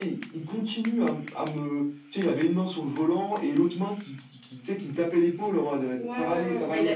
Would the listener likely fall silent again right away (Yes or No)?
No